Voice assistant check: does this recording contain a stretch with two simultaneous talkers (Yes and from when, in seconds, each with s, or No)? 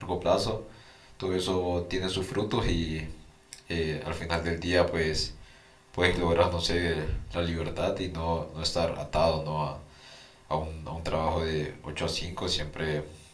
No